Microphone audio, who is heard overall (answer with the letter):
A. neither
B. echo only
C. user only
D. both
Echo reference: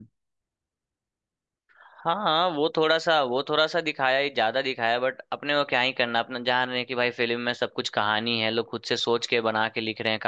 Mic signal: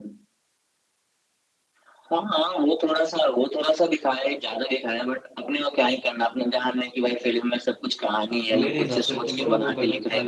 D